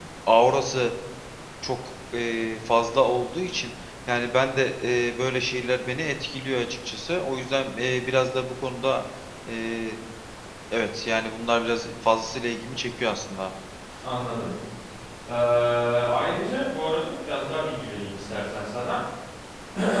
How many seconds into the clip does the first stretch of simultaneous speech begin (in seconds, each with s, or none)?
none